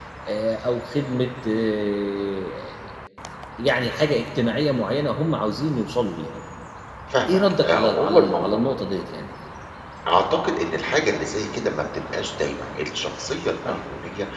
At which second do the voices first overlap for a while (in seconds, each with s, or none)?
7.3 s